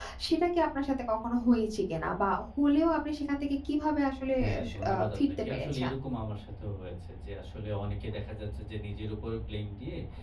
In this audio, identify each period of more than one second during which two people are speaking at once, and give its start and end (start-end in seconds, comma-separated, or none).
4.4-5.9